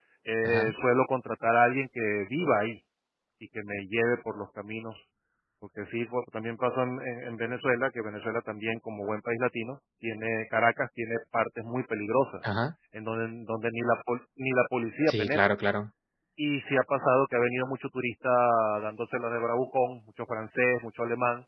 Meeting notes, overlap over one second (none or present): none